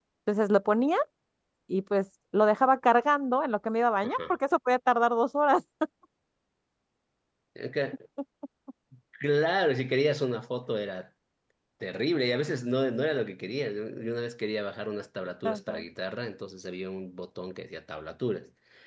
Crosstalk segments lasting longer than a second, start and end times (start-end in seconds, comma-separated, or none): none